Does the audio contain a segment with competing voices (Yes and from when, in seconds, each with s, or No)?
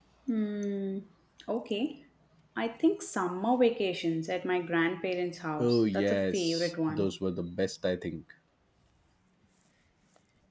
Yes, from 5.6 s